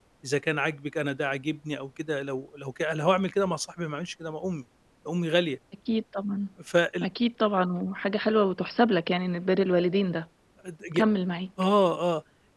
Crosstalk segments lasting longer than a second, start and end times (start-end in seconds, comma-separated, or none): none